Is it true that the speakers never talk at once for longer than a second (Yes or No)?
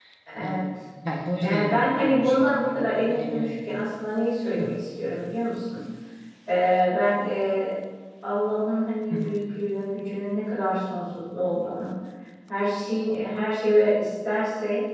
No